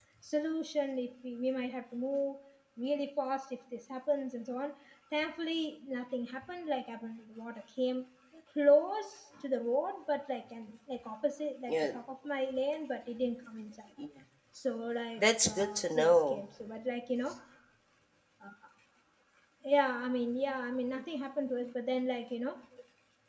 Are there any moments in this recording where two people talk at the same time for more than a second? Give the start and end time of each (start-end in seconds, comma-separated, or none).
15.2-16.4